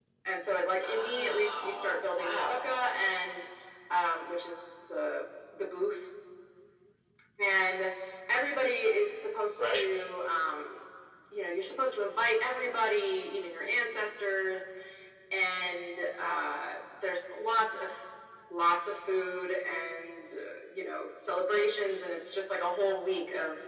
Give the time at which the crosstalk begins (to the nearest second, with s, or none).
1 s